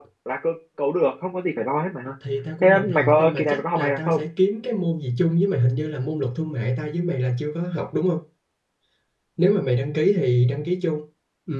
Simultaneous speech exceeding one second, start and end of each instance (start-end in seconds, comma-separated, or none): 2.6-4.2